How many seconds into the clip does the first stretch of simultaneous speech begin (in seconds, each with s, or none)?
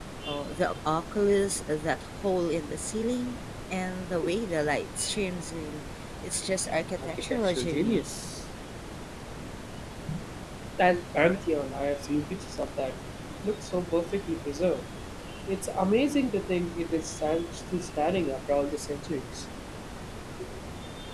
7.0 s